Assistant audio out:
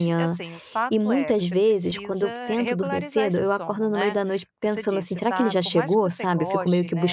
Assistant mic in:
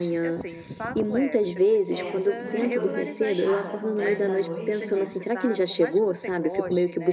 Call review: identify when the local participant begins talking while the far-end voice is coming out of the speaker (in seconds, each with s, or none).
1.9 s